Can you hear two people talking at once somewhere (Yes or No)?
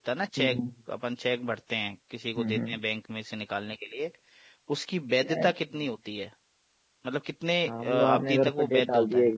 Yes